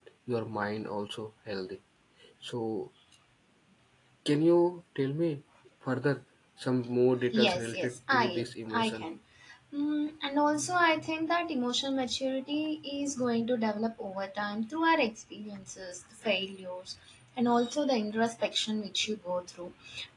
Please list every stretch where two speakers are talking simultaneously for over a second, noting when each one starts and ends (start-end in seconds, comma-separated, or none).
7.3-9.1